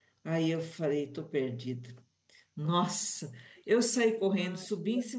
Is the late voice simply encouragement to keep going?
Yes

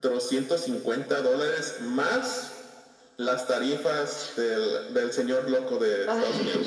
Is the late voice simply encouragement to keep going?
No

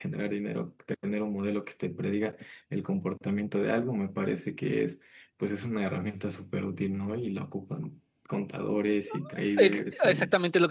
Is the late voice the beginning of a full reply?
Yes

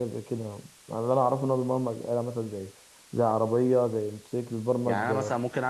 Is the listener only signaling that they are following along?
No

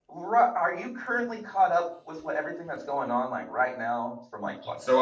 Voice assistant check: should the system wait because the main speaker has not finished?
No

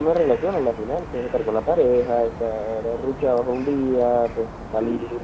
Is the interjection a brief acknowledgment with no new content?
Yes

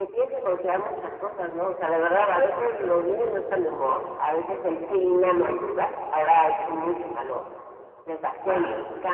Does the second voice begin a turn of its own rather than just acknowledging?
No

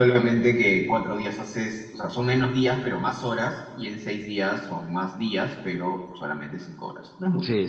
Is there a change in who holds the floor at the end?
Yes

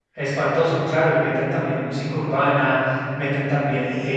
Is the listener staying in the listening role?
Yes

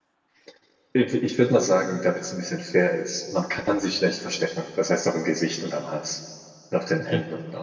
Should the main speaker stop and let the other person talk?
Yes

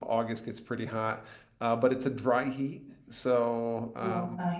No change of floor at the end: Yes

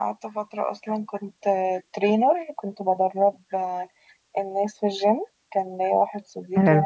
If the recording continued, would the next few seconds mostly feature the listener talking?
No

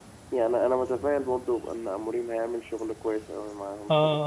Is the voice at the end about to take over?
Yes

